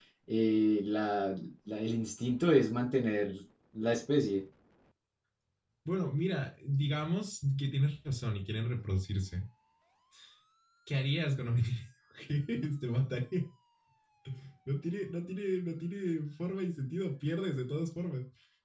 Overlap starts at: none

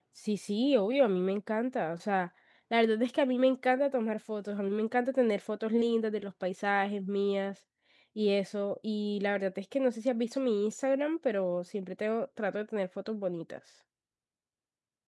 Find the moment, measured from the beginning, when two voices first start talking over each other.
none

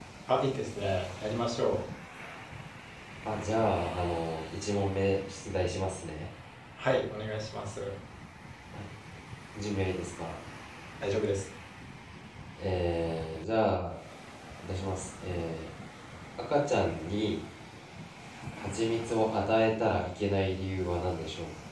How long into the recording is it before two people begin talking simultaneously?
none

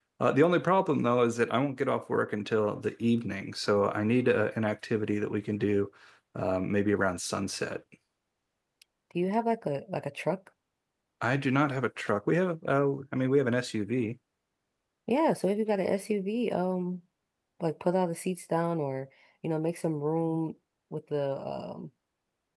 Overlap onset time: none

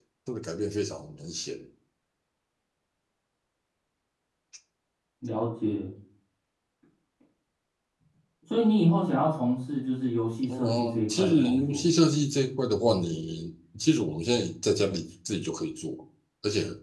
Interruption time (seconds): 10.5 s

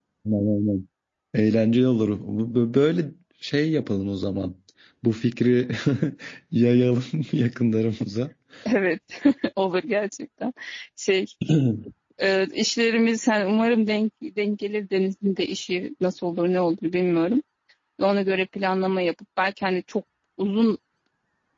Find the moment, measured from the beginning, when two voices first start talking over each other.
none

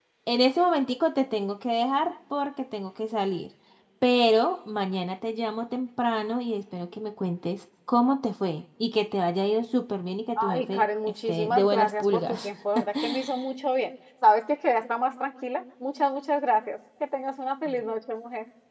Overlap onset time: 10.4 s

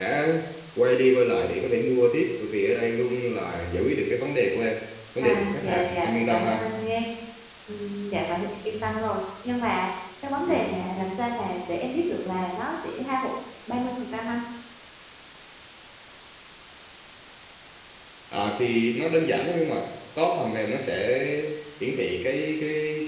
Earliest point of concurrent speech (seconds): 5.2 s

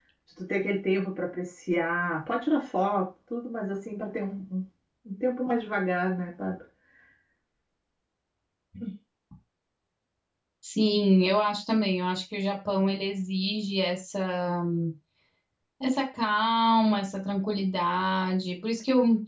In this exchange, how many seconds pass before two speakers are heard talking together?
none

